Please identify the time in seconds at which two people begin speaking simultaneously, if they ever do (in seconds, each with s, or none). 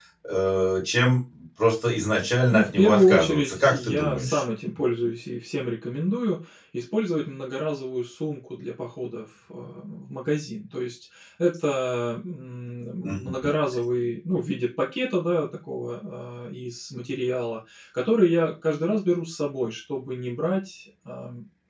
2.5 s